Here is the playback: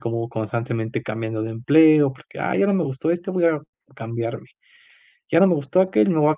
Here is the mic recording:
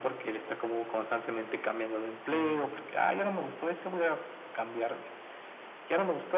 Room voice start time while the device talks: 2 s

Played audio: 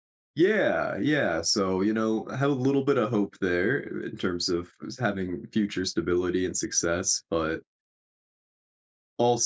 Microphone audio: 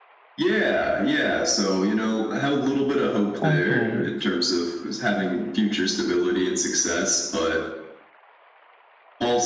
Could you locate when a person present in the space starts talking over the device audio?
3 s

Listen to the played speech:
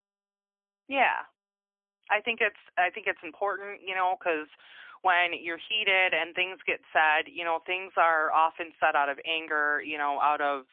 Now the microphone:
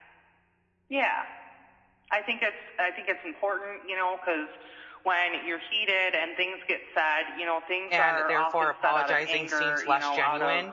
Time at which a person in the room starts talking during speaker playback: 8 s

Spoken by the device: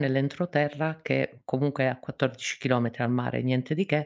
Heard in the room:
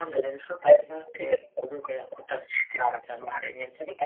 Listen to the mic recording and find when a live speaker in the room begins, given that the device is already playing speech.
none

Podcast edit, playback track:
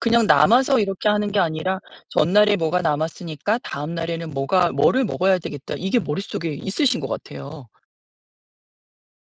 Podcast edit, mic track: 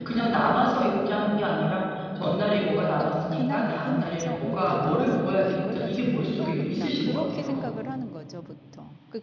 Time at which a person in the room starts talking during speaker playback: 3 s

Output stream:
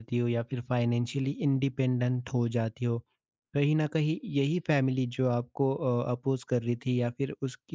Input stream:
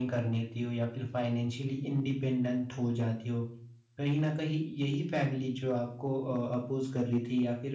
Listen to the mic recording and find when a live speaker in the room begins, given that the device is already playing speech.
none

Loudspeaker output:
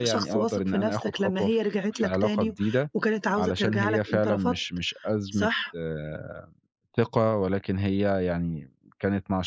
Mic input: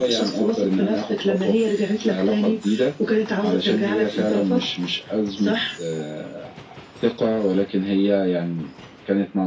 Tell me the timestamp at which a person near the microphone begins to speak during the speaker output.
none

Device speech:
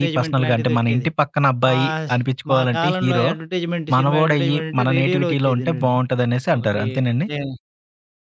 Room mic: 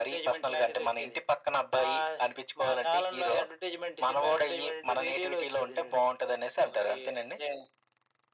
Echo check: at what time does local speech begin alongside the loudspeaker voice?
none

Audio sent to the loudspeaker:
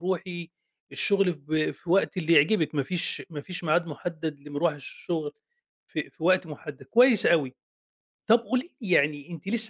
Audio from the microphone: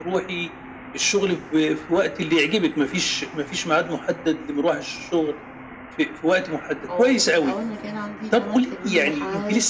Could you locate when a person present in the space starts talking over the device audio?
7 s

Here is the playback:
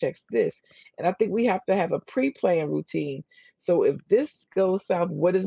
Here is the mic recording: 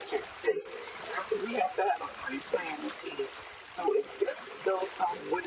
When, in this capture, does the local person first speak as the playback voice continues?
none

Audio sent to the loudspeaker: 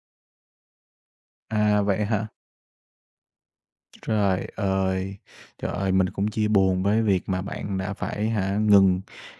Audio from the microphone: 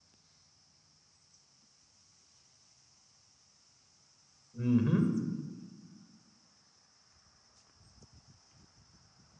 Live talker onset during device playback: 5 s

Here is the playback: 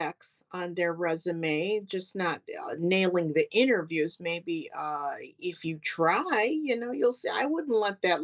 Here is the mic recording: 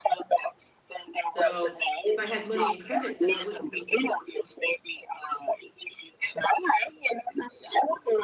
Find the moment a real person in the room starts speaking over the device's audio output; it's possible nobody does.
1 s

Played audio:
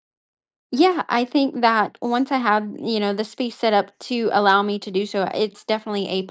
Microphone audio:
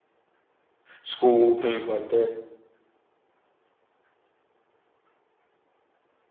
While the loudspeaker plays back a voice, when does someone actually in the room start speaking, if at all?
1 s

